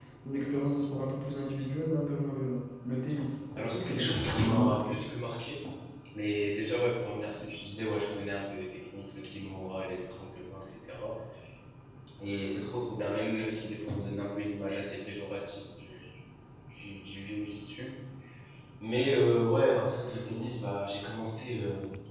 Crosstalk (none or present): present